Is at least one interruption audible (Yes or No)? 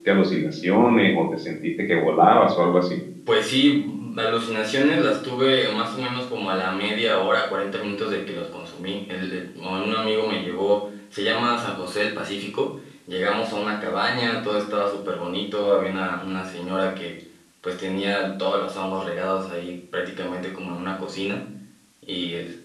No